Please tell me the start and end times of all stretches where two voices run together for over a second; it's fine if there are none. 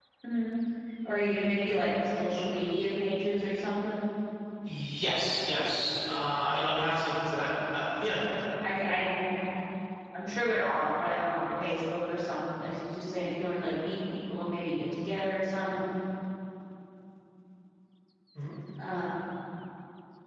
none

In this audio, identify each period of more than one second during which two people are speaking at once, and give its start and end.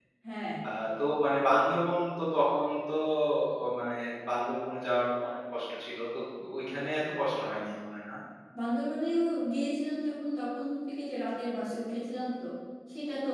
none

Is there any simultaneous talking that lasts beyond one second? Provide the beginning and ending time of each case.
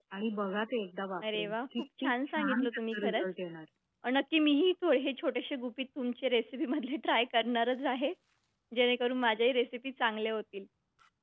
1.3-3.2

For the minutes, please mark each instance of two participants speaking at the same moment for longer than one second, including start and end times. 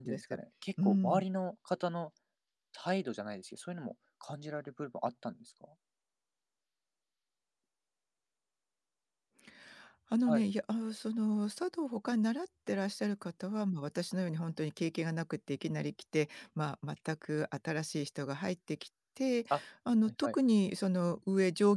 none

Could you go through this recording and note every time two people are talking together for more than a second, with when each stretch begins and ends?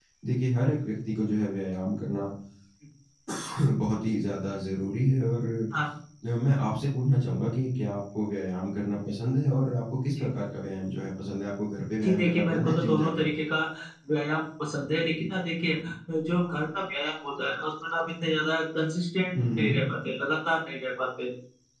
12.0-13.3

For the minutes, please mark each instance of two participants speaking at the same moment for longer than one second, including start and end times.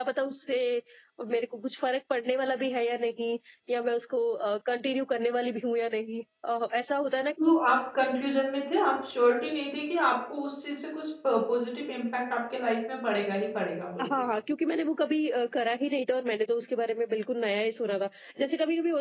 none

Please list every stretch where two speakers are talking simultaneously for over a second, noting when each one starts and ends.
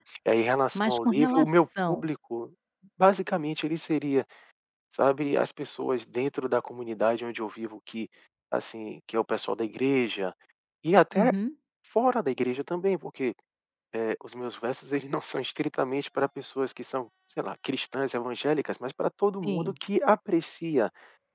0.8-2.1

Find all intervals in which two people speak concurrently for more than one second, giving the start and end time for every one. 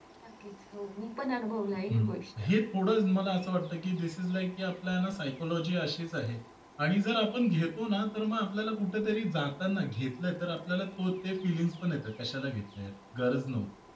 none

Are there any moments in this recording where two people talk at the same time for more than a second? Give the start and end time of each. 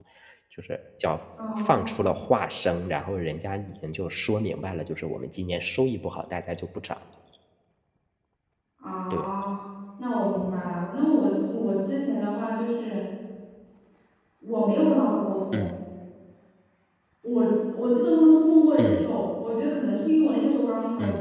none

